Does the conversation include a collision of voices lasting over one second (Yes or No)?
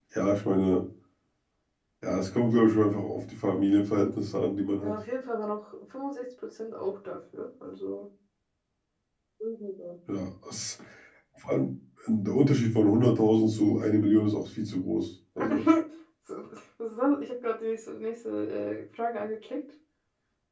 No